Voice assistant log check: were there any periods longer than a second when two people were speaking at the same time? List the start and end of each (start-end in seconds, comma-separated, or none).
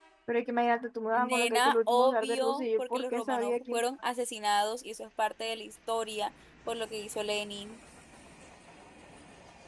1.1-3.8